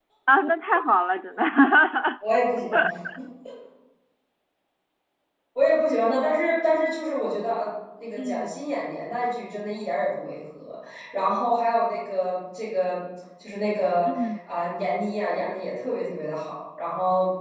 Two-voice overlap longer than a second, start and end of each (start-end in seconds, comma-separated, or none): none